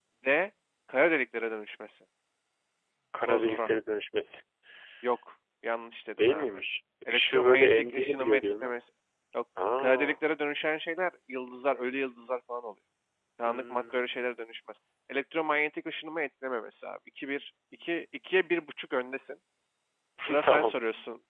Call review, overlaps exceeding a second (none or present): present